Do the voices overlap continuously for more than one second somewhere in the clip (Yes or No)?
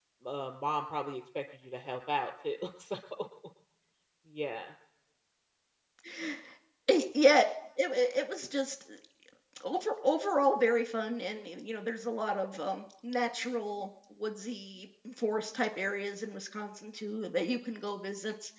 No